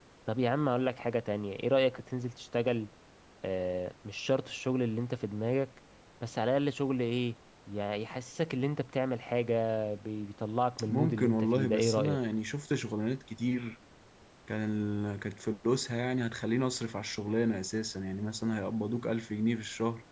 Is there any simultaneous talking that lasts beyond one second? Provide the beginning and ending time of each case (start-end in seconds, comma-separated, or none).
10.9-12.2